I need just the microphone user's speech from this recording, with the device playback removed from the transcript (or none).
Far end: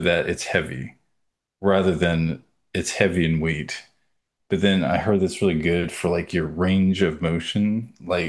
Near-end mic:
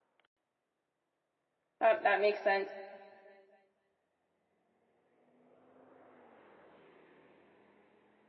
That that makes sense.